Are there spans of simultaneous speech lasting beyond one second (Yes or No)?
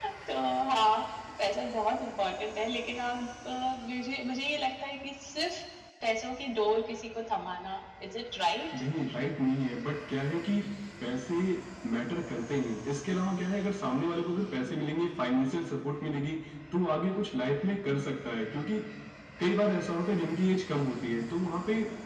No